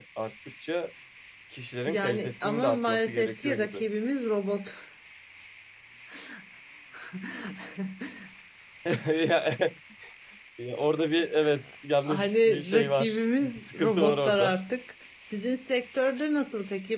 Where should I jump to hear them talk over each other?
1.9 s

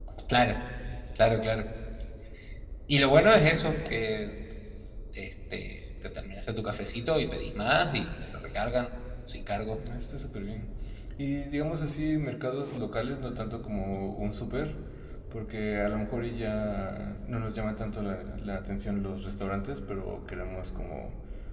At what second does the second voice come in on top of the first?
none

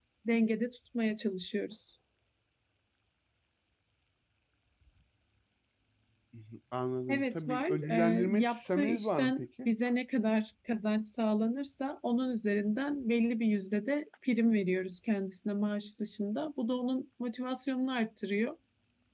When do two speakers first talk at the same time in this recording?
7.1 s

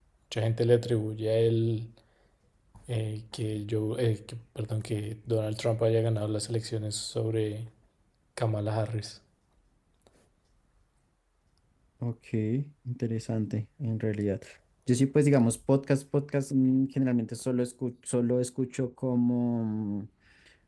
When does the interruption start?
none

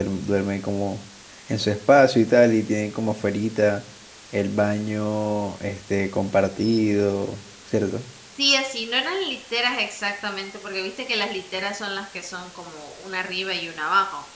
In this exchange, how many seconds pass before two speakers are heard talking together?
none

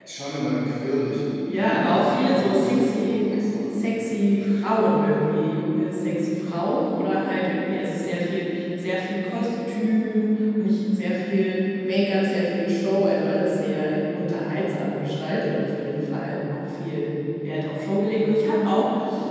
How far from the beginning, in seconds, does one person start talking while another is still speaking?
1.5 s

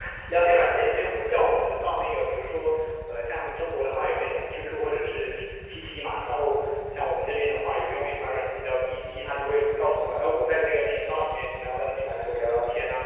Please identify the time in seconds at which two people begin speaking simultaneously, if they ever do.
none

